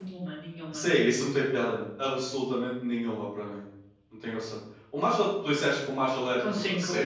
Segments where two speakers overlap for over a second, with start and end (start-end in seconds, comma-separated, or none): none